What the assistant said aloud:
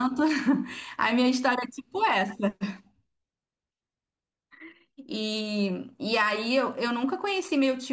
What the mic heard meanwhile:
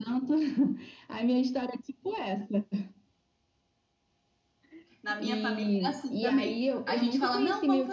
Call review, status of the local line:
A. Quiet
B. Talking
B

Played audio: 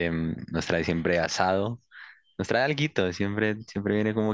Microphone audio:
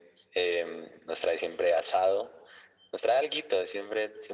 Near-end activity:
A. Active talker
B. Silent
B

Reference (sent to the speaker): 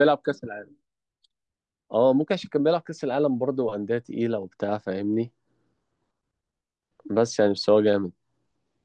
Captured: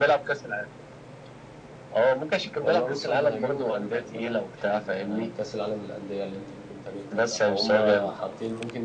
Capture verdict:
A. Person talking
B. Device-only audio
A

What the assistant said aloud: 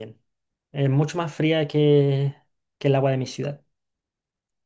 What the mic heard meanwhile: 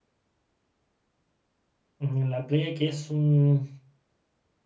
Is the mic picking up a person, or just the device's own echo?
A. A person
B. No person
A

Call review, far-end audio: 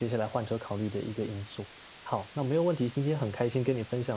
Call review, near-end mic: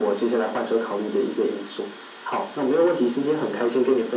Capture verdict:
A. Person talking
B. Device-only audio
B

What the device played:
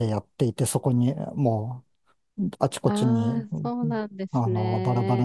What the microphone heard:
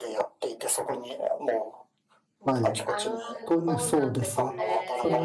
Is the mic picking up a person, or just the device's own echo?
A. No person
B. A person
B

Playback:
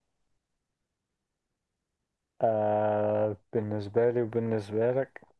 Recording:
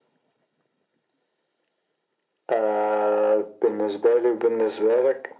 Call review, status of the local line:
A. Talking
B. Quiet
B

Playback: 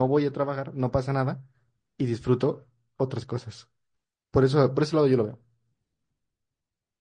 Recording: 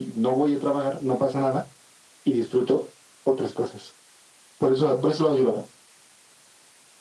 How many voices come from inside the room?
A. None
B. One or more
A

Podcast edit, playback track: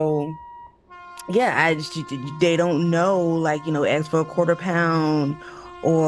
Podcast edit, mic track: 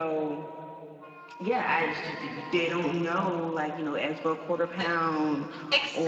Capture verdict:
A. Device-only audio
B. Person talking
B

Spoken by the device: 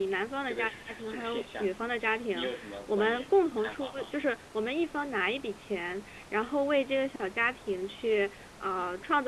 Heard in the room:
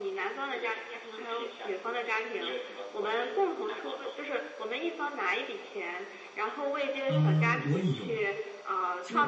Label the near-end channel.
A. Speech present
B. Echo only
A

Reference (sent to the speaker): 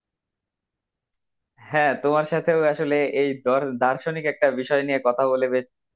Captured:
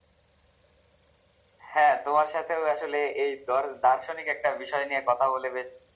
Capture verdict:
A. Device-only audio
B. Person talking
A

